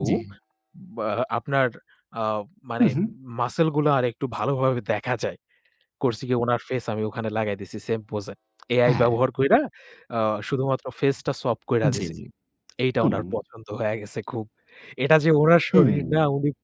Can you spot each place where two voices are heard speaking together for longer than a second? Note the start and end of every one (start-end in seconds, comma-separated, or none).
none